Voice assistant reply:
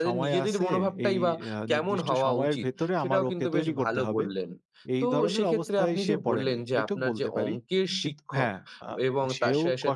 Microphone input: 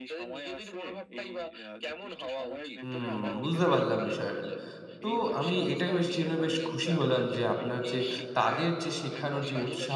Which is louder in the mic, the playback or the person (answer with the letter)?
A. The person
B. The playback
A